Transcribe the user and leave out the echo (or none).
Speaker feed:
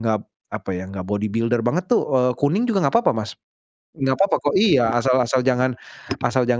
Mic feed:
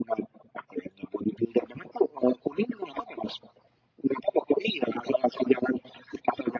none